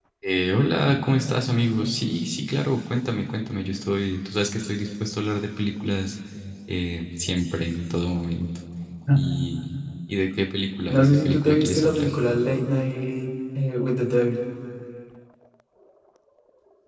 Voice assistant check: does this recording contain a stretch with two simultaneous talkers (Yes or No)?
Yes